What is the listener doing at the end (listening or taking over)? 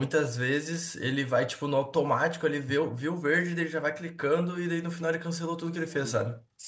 taking over